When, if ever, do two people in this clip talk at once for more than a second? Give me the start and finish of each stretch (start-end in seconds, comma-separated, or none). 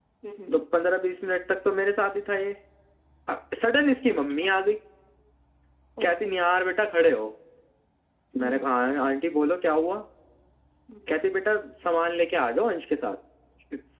none